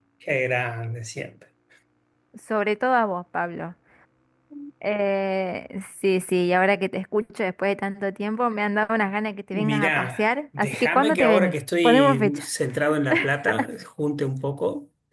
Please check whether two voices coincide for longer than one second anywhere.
Yes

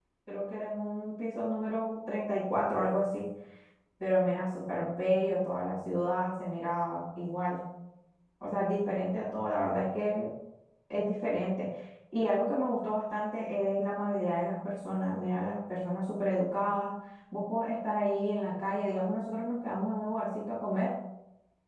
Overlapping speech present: No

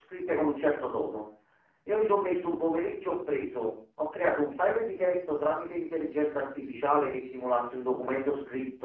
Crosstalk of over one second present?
No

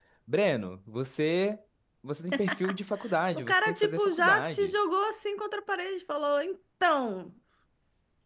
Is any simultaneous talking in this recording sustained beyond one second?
Yes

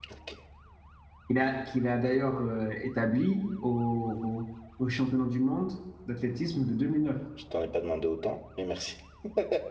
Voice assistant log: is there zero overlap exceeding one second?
Yes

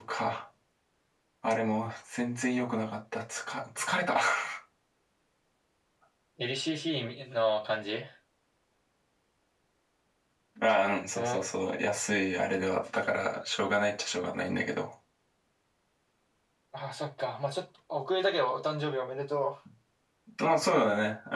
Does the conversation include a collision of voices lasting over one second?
No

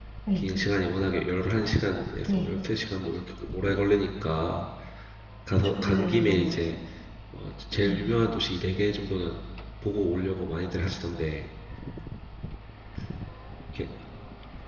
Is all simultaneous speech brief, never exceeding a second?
No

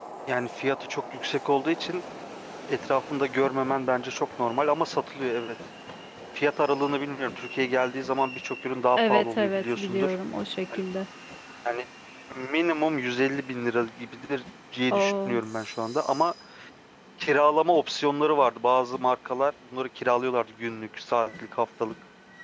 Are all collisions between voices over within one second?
No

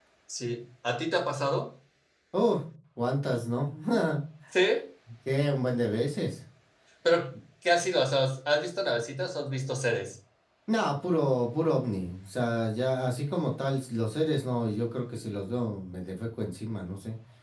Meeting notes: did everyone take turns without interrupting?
Yes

